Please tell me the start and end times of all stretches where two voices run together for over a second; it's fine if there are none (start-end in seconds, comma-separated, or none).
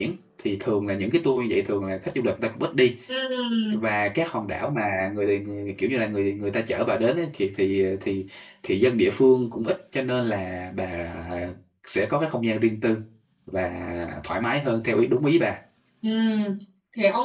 none